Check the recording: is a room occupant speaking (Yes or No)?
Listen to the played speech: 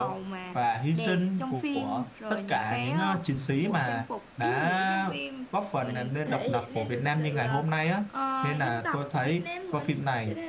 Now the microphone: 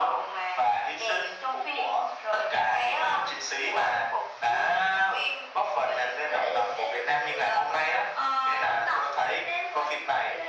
No